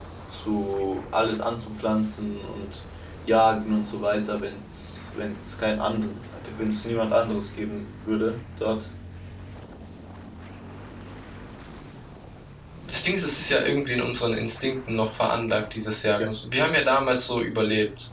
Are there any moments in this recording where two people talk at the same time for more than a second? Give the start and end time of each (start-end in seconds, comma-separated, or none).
none